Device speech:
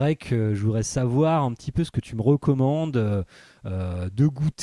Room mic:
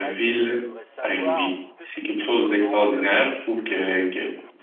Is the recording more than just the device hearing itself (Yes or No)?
Yes